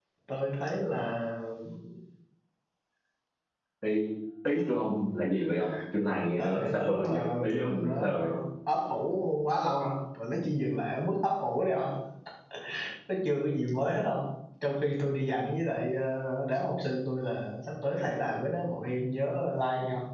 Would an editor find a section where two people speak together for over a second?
Yes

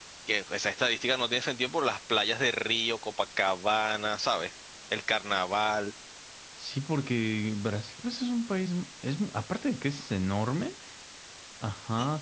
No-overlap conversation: Yes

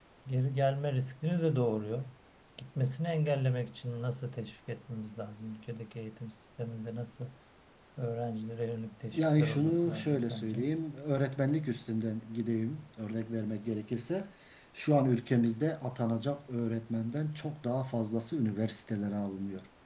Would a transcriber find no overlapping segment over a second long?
No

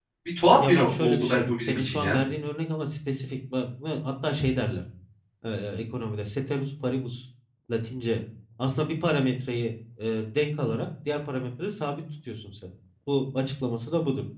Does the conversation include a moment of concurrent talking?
Yes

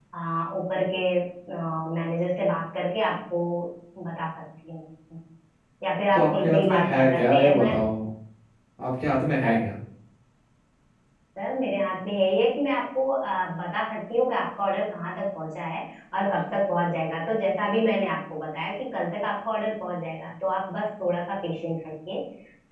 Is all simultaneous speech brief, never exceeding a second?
No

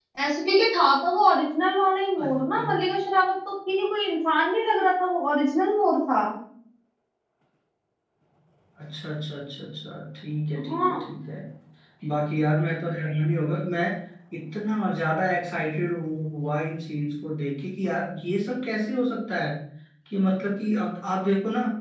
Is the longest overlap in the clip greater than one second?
No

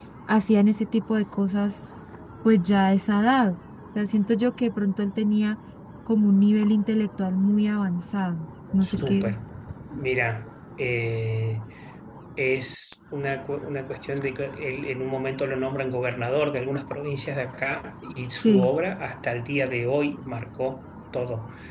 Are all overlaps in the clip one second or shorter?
Yes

